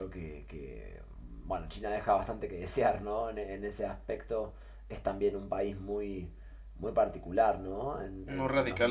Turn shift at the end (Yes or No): No